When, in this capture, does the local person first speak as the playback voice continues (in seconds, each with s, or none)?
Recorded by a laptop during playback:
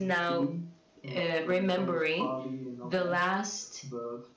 none